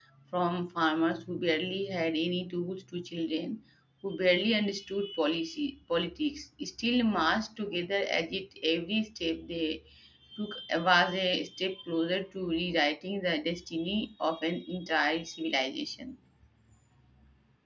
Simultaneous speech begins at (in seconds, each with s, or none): none